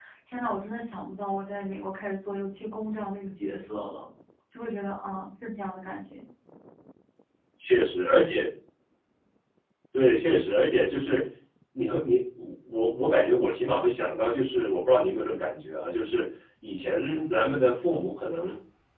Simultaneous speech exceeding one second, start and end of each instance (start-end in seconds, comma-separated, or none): none